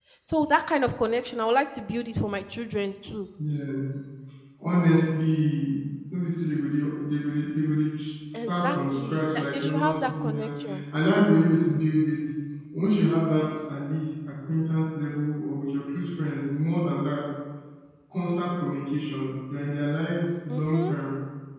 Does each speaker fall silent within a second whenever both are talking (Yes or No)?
No